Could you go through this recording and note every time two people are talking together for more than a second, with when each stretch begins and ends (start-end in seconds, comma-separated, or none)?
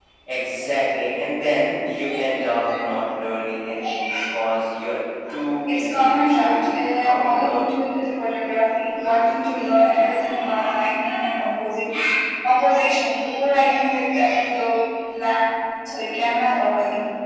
5.7-7.8